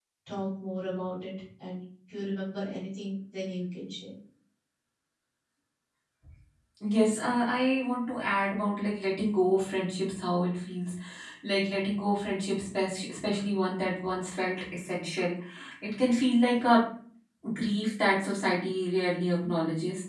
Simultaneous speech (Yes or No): No